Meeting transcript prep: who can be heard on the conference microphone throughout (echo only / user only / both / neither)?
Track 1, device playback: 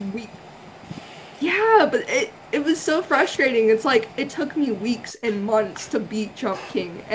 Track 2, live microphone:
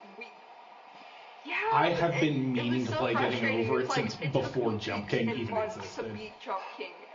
both